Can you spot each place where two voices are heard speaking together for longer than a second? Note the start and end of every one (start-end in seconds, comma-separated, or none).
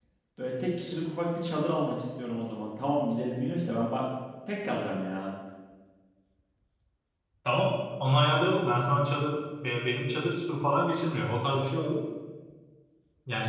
none